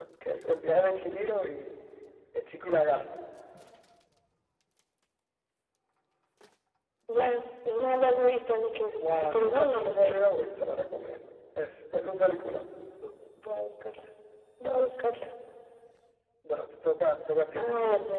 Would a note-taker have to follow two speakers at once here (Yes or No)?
Yes